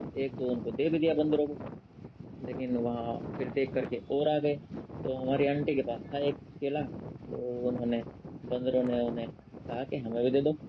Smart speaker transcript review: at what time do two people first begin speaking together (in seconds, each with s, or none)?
none